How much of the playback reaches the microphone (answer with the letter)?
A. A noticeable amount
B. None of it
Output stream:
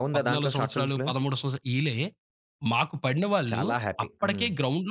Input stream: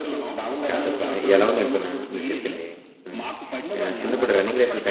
A